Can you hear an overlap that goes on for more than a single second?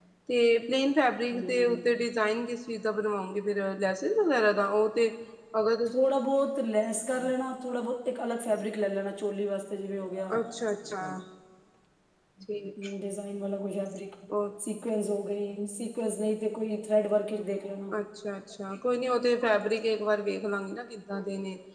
No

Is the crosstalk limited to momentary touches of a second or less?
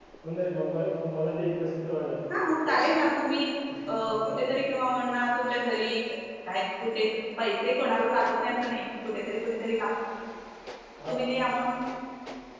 Yes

